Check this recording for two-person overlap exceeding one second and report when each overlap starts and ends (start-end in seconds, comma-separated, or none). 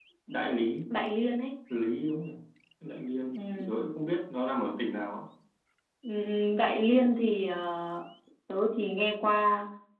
none